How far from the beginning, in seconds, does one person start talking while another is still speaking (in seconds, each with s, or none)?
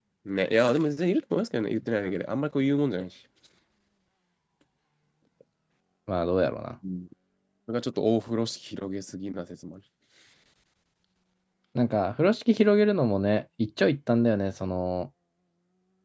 none